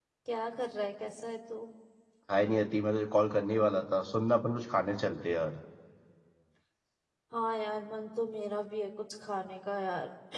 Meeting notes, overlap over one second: none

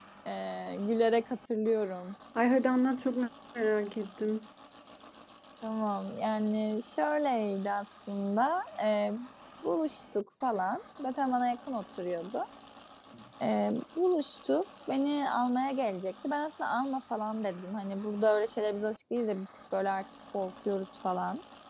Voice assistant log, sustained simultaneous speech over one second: none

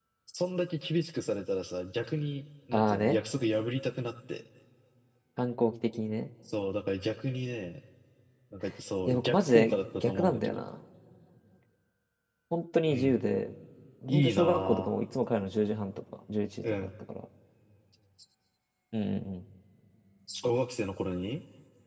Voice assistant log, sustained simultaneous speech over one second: present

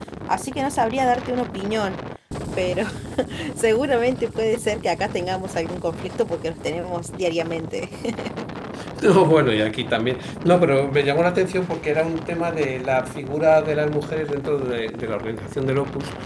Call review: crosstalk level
none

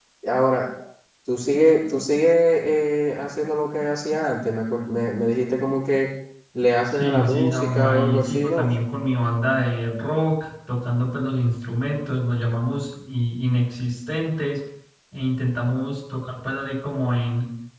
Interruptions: present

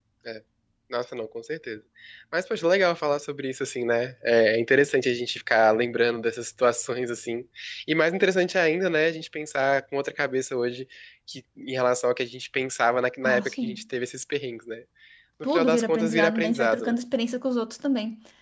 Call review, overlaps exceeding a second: present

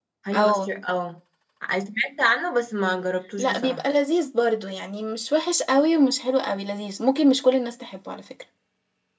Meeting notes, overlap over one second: none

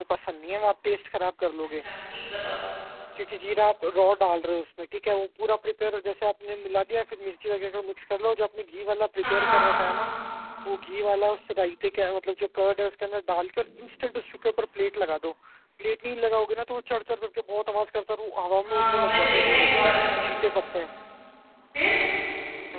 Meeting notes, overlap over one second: present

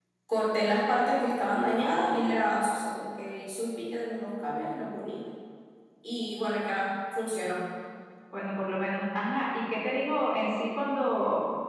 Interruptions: none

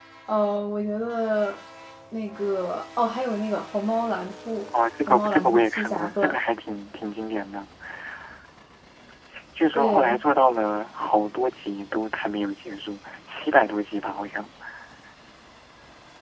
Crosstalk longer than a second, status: present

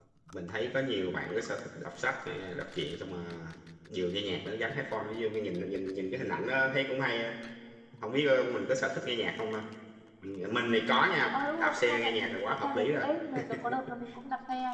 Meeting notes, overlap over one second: present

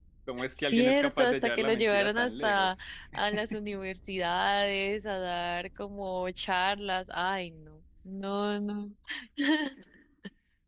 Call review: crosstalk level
present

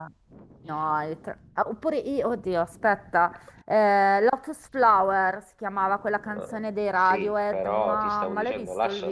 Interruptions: present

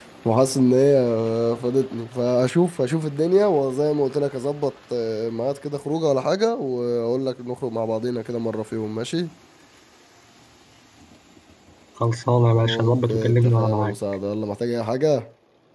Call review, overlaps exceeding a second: present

